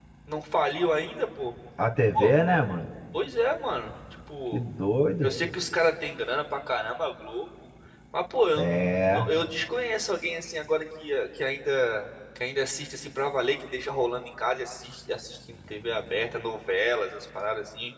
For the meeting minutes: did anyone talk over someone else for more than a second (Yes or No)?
No